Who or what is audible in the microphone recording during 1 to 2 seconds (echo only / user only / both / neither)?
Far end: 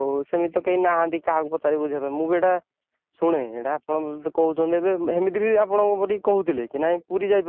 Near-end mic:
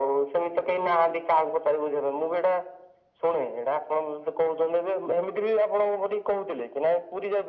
echo only